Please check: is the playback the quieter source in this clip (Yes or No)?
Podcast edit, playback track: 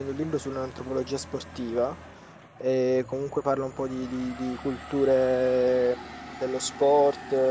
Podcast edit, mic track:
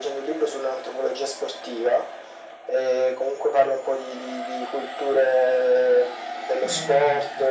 No